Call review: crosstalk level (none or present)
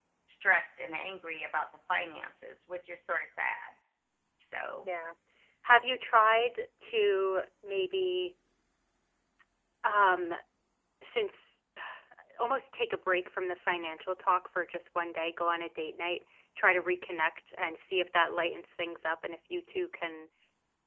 none